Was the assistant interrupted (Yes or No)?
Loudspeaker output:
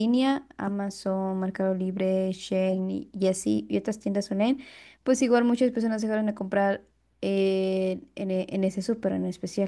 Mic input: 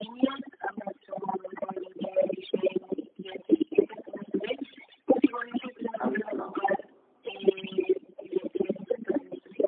Yes